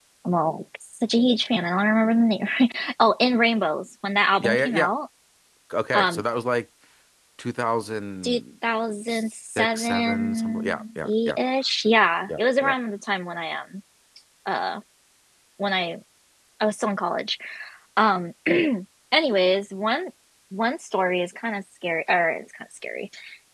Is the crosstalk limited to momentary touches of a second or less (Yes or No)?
No